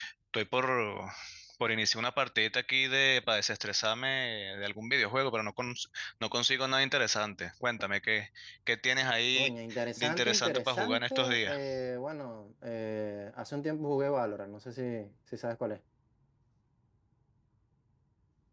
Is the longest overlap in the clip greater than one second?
Yes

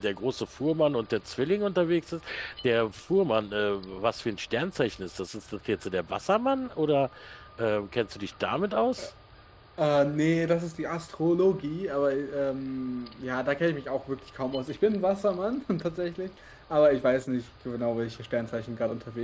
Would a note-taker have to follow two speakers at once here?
No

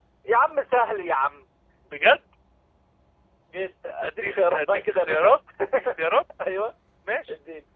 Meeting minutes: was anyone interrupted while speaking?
Yes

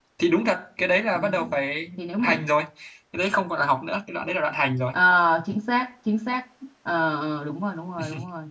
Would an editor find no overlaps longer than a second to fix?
Yes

